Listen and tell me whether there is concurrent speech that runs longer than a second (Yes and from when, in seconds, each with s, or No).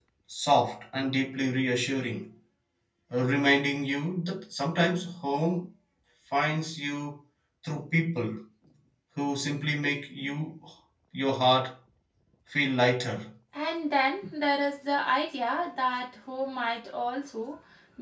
No